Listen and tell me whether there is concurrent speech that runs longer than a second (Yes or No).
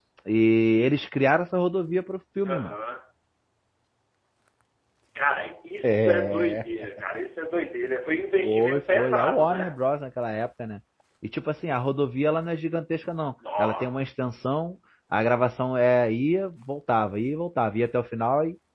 Yes